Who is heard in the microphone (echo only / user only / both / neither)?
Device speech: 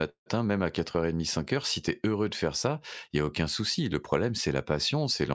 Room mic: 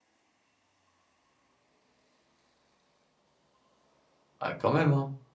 user only